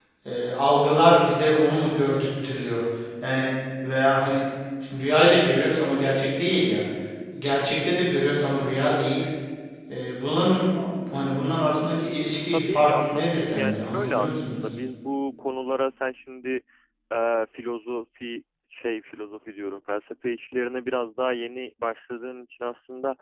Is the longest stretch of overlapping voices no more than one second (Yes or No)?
No